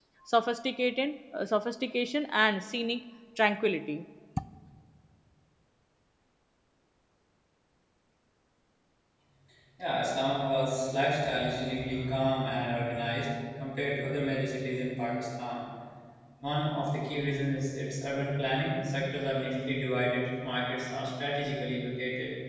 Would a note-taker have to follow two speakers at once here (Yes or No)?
No